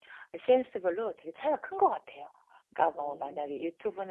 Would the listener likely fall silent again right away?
Yes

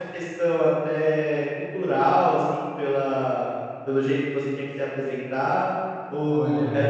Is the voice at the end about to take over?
No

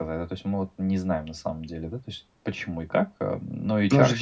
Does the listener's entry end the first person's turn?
Yes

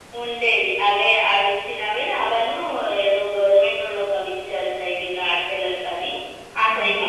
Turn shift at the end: Yes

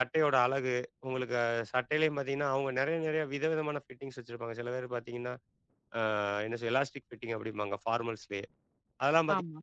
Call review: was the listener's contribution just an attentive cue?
Yes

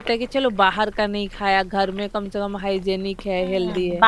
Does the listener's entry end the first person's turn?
Yes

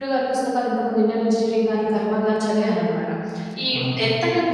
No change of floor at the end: Yes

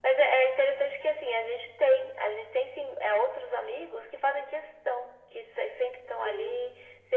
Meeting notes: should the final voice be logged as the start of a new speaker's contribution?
No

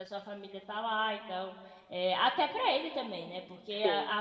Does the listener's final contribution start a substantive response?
No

